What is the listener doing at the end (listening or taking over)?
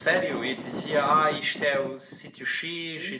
taking over